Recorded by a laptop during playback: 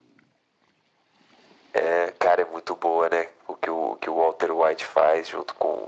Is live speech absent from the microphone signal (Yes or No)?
Yes